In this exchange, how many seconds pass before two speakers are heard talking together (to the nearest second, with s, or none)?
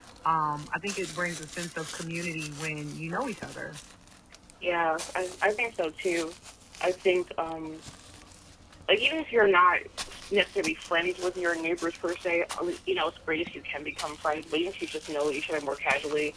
none